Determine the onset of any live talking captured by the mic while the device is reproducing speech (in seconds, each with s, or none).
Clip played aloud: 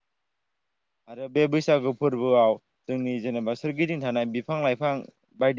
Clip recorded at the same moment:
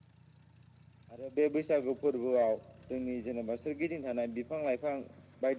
none